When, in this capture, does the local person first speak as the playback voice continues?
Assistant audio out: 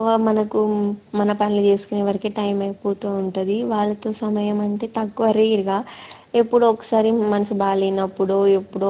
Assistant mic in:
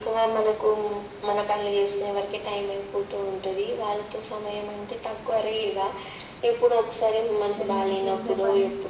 8 s

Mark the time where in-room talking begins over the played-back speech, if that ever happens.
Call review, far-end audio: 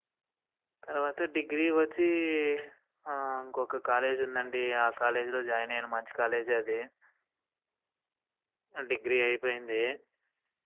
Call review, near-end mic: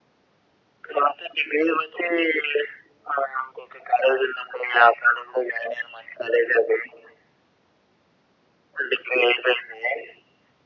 none

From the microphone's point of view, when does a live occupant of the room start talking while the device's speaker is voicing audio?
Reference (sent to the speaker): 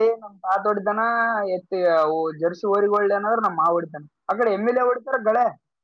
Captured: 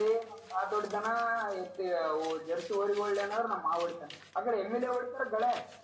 none

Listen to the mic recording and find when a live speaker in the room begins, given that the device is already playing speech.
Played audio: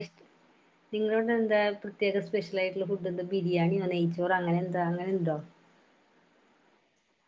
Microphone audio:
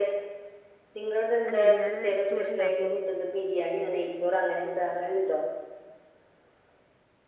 1 s

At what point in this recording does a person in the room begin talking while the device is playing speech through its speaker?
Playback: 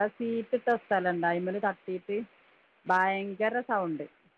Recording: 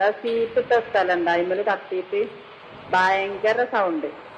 none

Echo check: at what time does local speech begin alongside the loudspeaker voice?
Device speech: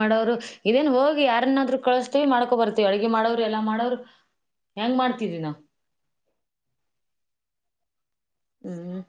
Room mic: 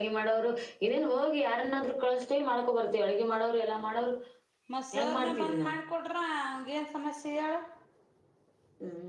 5 s

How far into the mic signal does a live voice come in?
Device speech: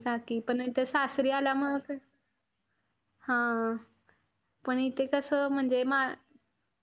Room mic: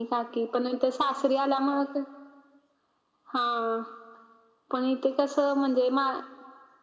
none

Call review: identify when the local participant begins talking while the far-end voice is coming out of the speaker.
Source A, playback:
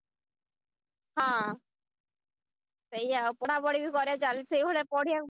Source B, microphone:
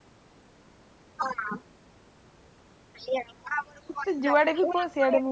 4 s

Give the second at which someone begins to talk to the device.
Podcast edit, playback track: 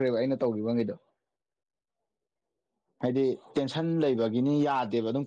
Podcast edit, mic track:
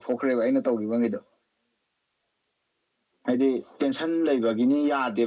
none

